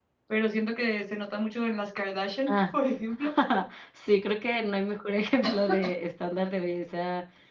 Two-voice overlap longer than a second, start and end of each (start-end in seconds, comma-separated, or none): none